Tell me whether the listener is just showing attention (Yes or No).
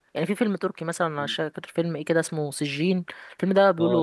No